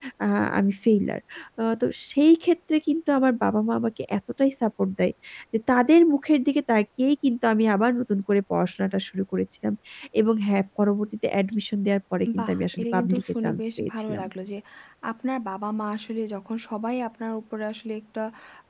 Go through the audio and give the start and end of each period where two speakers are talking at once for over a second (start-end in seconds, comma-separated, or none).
12.4-14.2